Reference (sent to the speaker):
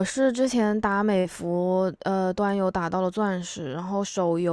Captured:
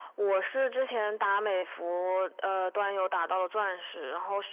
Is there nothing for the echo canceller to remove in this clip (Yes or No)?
No